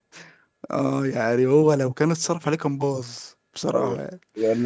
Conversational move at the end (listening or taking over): taking over